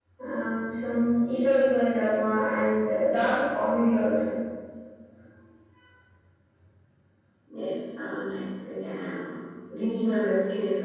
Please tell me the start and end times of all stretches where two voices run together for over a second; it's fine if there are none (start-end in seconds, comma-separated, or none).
none